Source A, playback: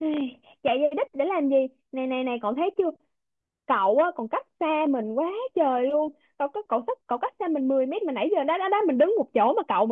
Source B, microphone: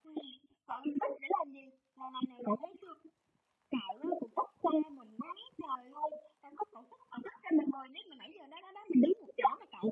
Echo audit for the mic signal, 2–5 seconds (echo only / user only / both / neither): echo only